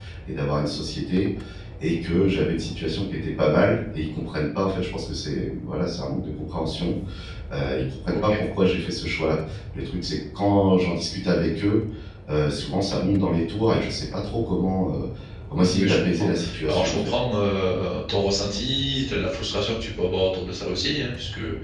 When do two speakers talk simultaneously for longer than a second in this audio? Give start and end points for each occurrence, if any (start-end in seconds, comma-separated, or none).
15.7-17.1